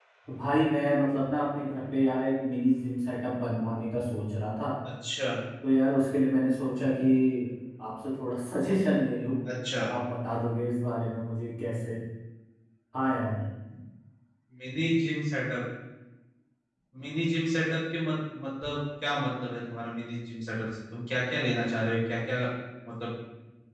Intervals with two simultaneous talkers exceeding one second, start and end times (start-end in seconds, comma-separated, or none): none